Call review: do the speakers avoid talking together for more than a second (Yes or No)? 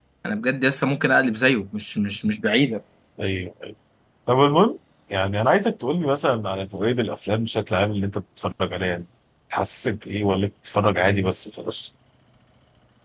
Yes